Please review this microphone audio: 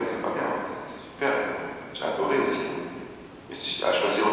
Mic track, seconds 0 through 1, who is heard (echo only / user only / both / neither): echo only